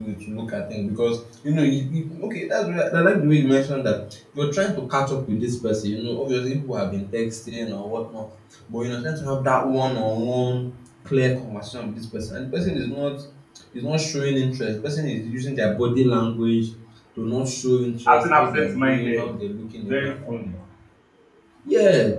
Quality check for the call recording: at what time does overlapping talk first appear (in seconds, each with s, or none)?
18.1 s